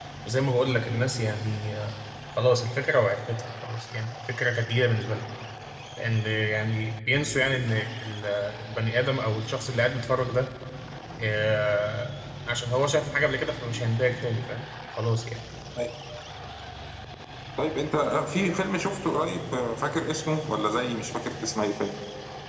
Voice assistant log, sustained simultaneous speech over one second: none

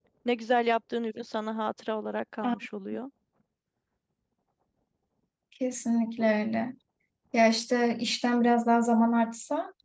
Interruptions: none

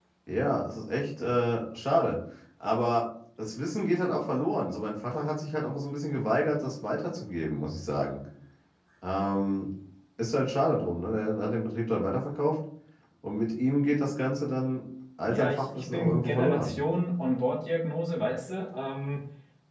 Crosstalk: present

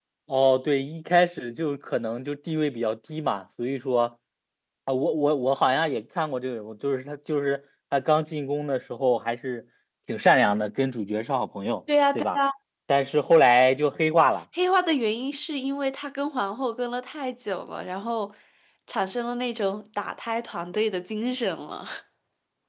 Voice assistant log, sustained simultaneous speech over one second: none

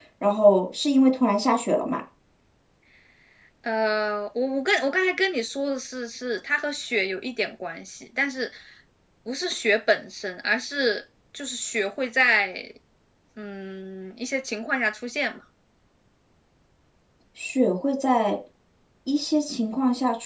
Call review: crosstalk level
none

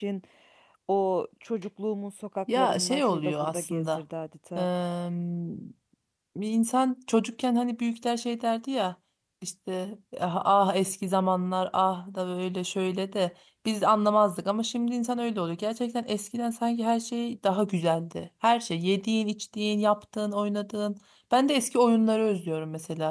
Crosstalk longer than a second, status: present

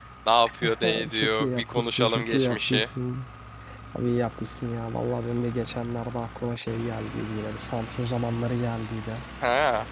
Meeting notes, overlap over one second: present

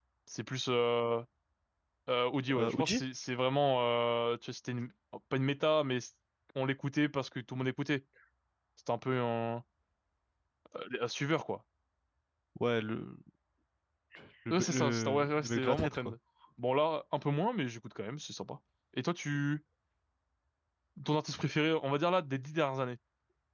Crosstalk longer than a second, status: present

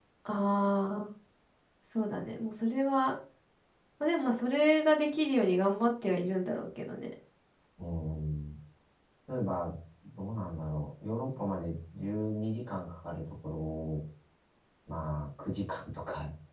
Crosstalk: none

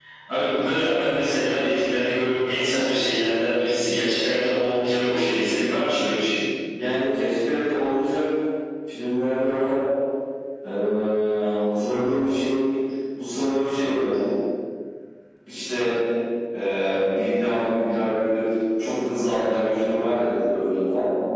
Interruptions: none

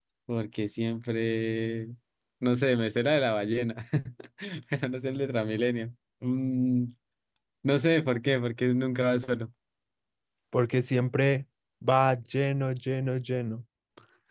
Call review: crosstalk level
none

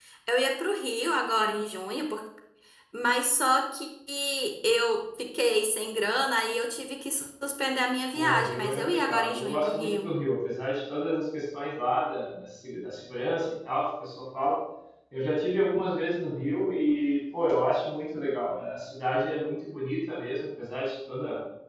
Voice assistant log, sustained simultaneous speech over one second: present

